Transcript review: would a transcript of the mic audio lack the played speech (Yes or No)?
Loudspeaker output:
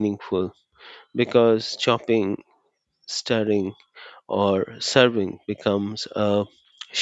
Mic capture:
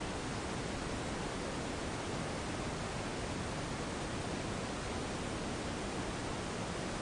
Yes